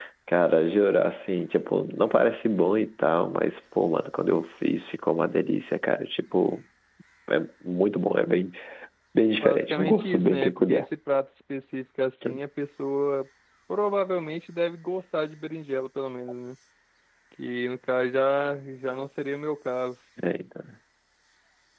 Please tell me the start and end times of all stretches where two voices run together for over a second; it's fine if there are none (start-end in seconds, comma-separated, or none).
9.4-10.8